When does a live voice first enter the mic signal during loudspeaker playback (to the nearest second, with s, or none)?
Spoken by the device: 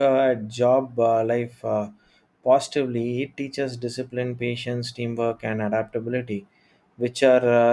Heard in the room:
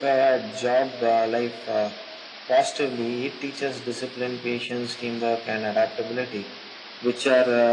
none